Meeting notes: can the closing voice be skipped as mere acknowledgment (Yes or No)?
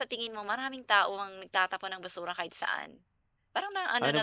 No